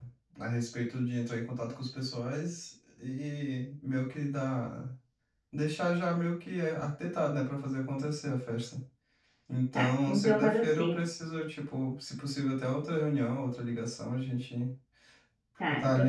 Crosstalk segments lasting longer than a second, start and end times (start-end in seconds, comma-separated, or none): 9.7-11.0